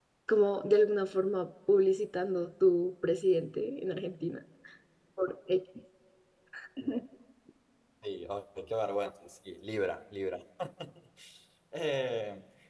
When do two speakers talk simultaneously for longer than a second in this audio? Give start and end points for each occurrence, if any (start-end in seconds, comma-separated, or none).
none